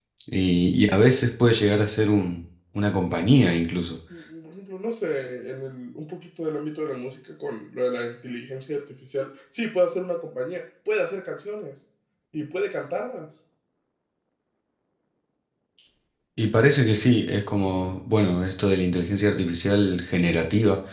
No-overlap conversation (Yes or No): Yes